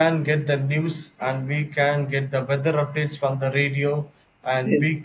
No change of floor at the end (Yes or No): Yes